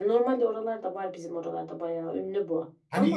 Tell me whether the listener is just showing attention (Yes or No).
No